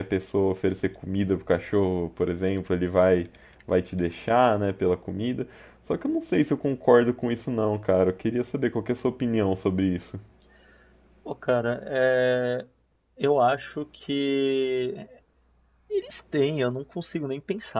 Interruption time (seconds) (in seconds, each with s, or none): none